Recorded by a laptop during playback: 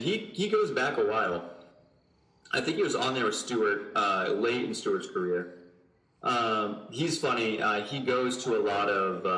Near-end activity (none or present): present